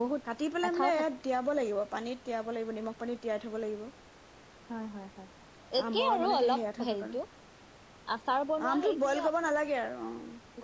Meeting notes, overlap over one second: present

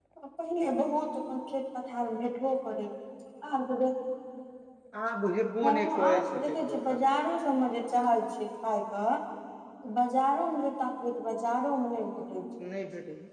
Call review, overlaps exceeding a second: present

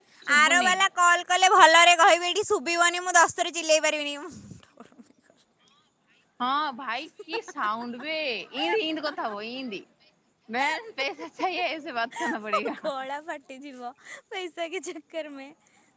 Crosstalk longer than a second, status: none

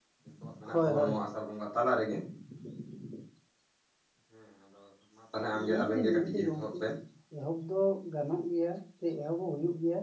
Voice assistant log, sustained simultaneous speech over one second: present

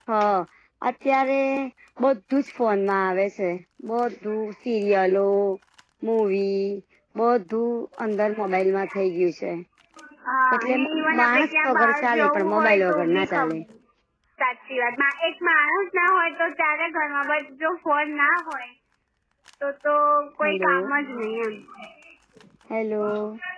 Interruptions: present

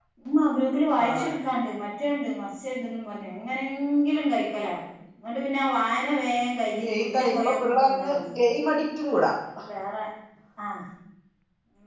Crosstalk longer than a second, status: present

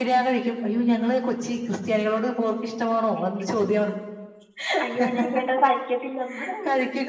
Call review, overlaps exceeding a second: none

